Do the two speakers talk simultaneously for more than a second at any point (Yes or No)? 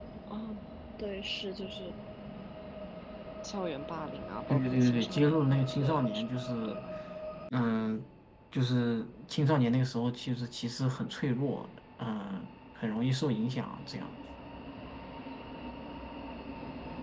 Yes